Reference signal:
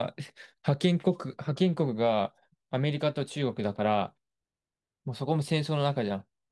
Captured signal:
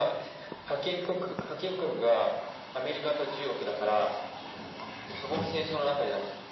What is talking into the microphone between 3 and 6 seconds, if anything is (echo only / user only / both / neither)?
echo only